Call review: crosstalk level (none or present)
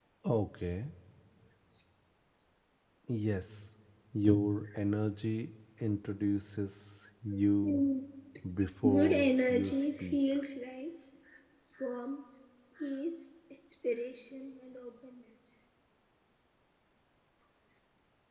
present